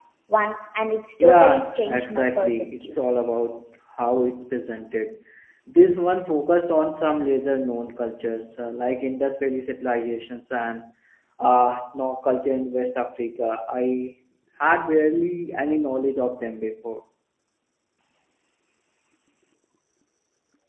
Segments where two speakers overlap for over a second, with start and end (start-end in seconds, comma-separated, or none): 1.2-3.1